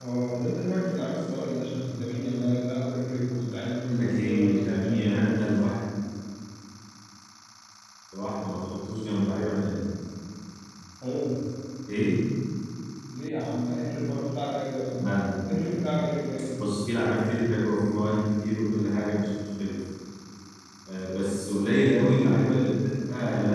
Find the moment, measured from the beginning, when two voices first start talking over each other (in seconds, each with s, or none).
3.9 s